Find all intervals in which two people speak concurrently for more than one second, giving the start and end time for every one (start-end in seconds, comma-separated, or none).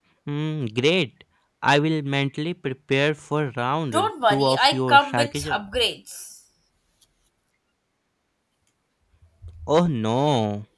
3.9-5.6